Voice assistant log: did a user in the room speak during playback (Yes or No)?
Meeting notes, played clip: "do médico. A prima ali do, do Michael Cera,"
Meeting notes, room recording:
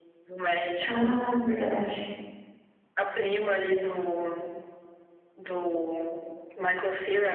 Yes